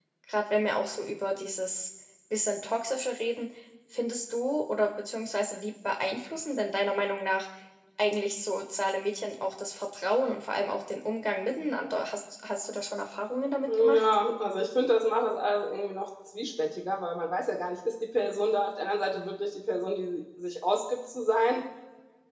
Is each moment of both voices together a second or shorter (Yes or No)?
Yes